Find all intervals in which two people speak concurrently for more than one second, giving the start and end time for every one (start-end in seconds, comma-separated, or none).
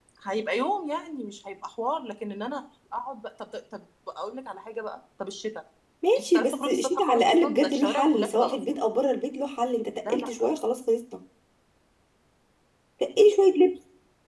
6.2-8.8